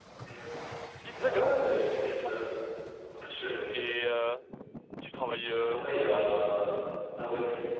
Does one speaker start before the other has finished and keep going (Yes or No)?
Yes